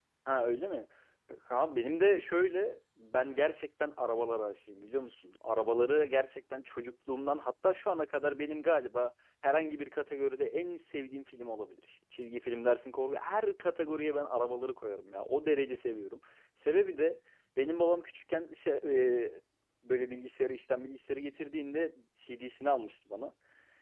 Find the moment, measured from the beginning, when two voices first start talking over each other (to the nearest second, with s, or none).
none